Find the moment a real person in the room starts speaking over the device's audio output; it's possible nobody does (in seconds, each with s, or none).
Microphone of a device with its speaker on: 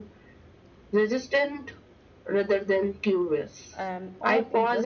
3.7 s